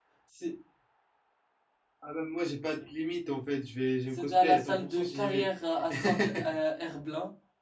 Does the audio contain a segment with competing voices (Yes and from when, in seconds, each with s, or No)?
Yes, from 4.1 s